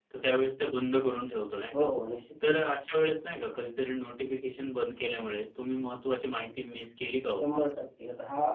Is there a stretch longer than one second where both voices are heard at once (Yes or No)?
No